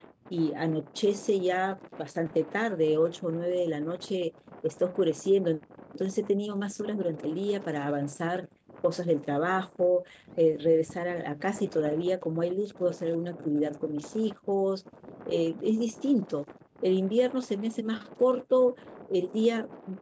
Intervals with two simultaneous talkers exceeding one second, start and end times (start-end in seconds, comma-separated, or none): none